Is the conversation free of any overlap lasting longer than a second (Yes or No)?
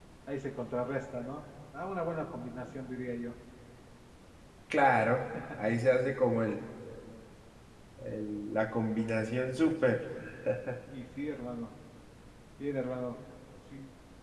Yes